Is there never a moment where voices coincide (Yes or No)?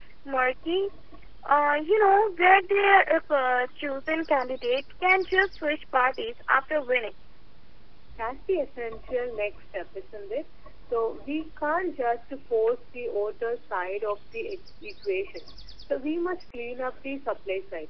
Yes